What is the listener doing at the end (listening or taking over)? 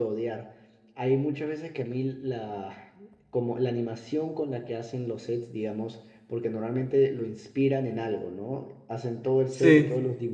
listening